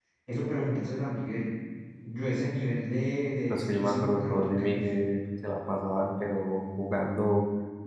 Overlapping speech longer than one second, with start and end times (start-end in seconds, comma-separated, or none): 3.5-4.8